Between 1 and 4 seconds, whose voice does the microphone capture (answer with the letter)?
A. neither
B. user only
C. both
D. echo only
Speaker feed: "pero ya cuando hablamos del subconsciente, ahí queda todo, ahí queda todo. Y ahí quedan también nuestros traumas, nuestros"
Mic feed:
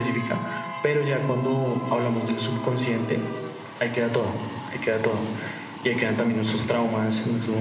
D